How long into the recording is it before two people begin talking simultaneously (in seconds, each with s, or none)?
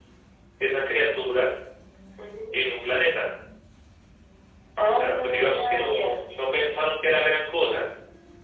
4.9 s